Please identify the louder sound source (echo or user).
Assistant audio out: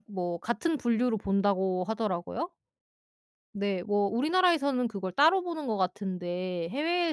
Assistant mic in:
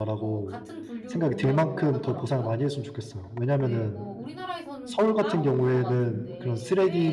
user